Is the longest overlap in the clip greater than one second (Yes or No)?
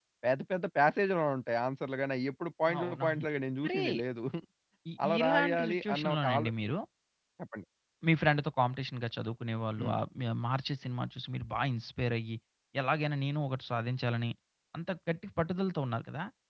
Yes